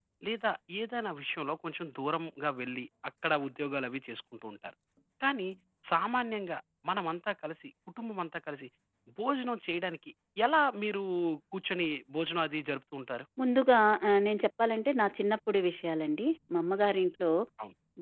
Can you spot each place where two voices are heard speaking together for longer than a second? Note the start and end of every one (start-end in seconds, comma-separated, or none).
none